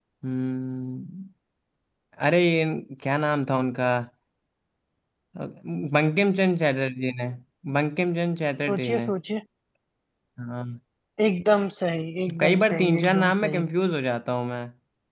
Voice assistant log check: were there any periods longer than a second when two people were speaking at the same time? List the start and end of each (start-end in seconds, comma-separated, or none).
12.4-13.6